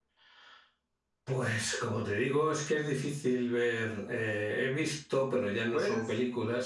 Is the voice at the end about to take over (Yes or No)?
No